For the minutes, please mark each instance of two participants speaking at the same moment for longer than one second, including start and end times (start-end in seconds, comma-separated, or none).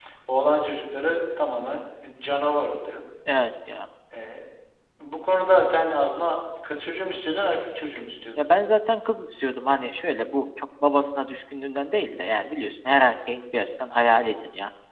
none